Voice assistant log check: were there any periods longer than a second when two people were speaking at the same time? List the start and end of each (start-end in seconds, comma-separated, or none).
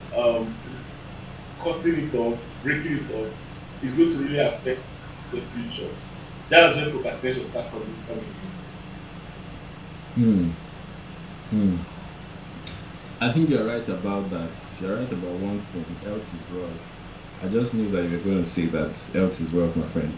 none